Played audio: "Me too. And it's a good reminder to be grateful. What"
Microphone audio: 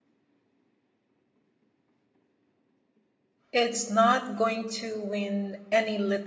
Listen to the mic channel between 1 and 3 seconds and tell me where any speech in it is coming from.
neither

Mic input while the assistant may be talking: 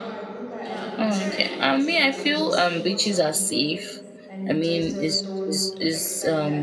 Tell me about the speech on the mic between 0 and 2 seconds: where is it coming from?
both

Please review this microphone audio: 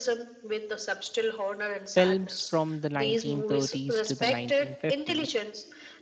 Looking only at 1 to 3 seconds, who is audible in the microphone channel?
both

